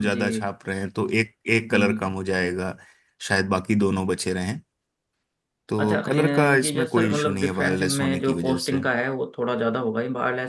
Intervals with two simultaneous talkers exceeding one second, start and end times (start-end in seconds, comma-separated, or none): 5.8-8.8